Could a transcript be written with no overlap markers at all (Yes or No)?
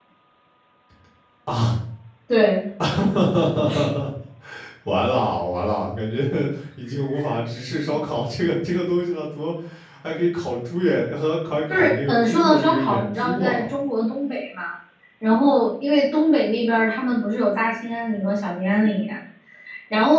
No